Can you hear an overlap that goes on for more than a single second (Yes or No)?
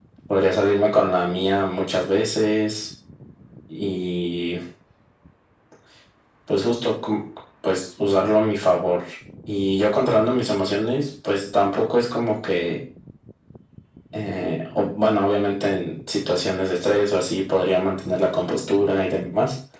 No